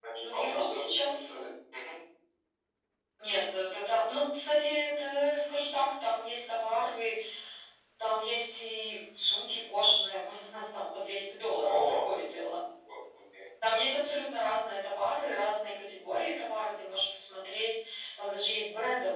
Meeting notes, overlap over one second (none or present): present